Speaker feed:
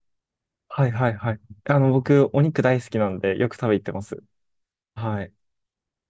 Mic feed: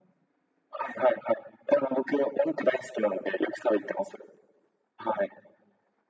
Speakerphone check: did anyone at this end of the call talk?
No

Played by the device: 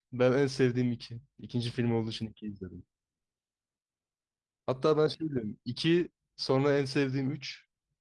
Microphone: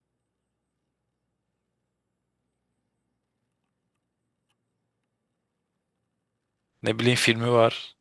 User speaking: Yes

